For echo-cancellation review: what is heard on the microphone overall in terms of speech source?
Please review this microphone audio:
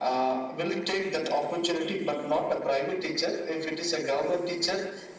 echo only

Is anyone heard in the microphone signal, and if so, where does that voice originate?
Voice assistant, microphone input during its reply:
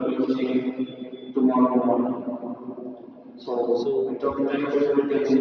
both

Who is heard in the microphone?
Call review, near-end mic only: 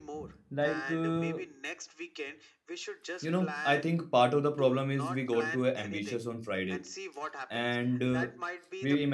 both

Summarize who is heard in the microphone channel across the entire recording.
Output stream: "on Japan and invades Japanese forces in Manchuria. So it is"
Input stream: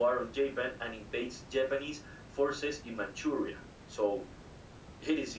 echo only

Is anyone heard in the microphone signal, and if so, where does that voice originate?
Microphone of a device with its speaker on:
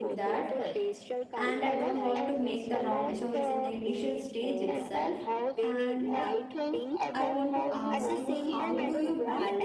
both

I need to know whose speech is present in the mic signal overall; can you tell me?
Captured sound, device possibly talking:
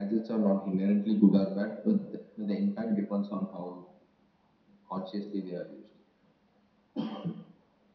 echo only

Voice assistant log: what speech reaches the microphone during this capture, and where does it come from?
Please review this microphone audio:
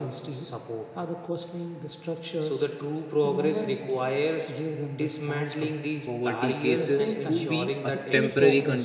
both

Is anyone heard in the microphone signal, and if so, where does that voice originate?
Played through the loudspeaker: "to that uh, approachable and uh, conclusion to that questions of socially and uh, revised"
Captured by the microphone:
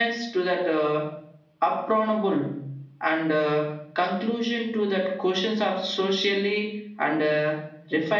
echo only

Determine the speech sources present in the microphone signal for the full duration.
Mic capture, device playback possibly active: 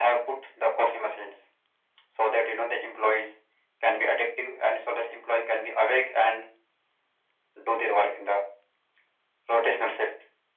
echo only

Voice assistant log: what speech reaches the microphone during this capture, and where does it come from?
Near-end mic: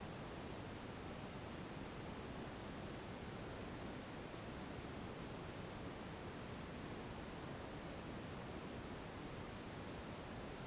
neither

